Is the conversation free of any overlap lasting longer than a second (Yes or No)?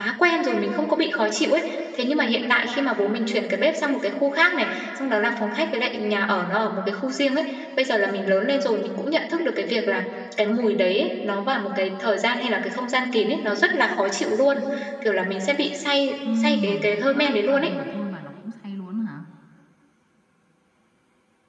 No